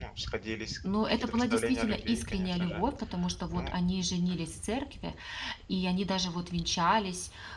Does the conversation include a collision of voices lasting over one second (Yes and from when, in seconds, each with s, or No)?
Yes, from 1.1 s